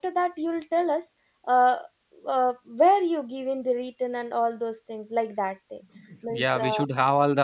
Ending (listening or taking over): taking over